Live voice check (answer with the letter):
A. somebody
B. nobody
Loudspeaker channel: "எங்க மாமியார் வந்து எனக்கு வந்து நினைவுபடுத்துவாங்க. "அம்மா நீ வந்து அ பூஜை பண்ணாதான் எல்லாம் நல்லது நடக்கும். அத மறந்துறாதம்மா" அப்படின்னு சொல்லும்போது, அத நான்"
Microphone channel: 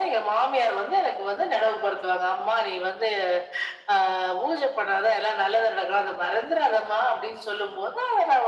B